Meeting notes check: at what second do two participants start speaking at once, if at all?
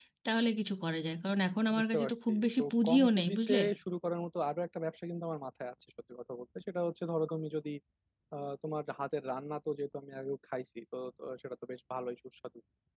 2 s

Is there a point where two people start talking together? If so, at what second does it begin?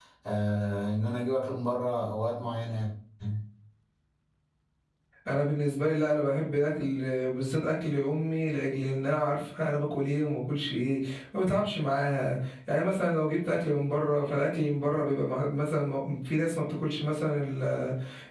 none

